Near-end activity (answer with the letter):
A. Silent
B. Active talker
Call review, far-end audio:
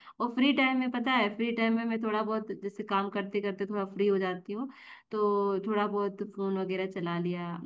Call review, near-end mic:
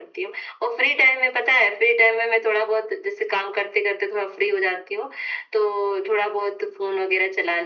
A